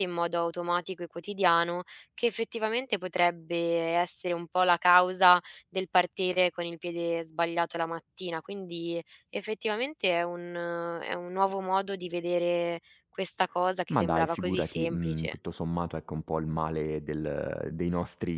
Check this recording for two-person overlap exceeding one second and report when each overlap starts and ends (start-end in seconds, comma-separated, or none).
13.9-15.3